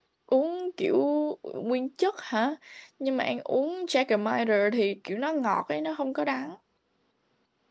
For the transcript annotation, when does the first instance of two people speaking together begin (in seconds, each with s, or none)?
none